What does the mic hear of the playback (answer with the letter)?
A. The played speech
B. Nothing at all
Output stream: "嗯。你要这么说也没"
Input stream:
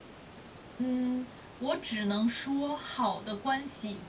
B